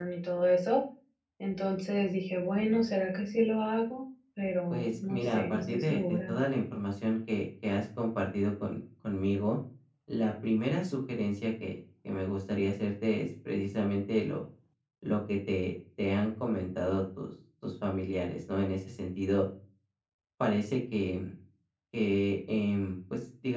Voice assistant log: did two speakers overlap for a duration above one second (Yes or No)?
Yes